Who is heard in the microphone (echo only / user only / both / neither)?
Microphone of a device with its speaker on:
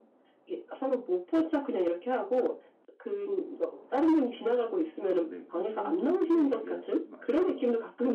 both